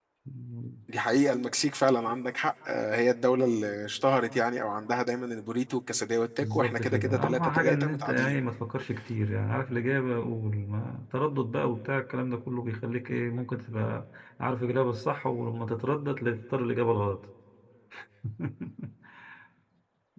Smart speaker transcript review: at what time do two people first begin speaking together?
6.4 s

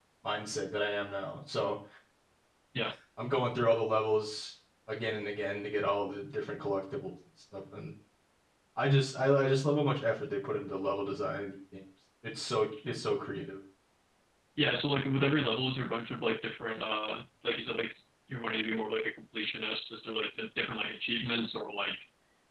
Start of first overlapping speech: none

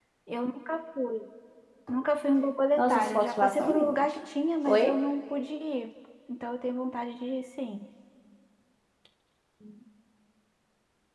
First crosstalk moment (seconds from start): 2.8 s

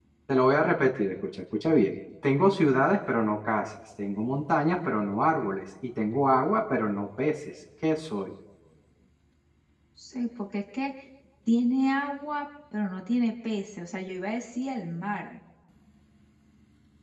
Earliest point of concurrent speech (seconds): none

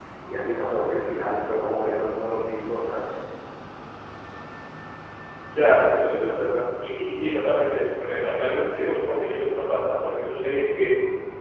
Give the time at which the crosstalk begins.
none

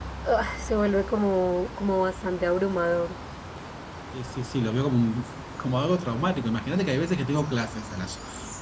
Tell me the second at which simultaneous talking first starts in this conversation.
none

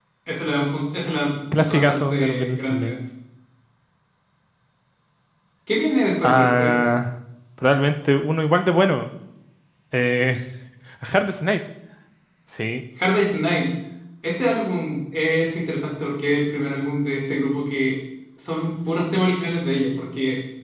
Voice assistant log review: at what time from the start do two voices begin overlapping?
1.6 s

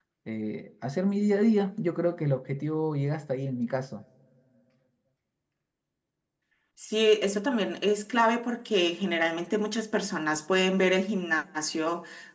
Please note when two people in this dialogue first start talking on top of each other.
none

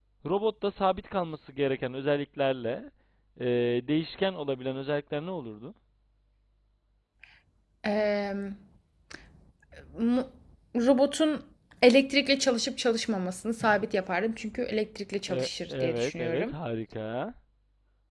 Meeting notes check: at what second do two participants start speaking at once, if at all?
15.3 s

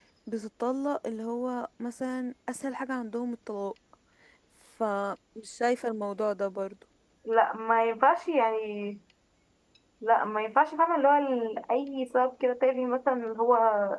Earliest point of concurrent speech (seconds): none

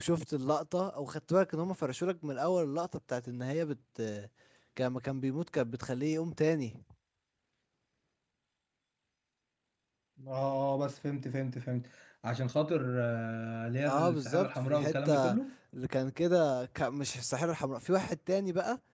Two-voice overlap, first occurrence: 13.9 s

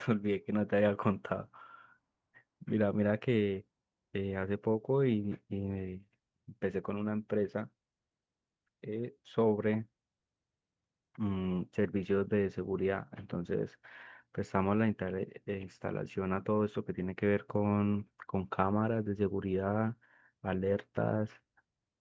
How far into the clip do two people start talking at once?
none

